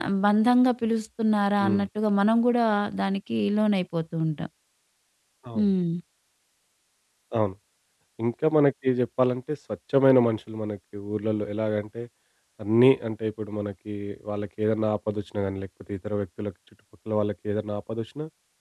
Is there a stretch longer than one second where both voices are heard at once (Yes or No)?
No